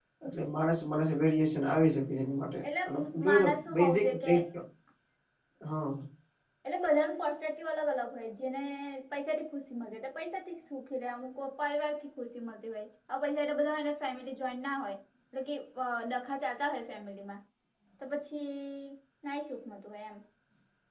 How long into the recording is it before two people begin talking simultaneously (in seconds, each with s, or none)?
2.6 s